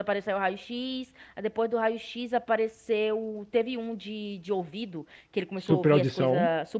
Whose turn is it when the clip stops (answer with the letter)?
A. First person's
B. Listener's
A